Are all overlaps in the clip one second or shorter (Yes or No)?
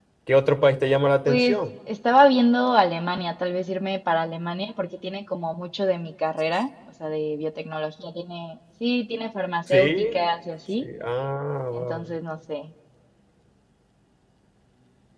Yes